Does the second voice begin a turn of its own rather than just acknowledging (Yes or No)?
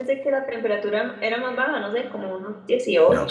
Yes